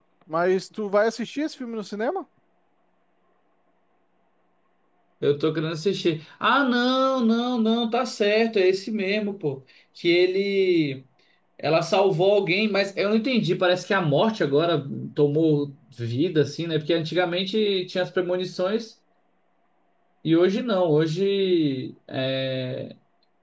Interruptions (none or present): none